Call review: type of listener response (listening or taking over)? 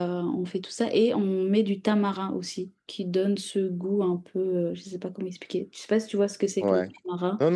taking over